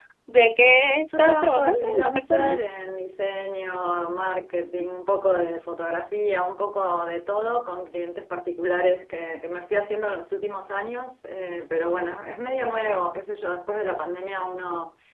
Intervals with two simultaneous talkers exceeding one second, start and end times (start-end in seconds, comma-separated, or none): 1.1-2.6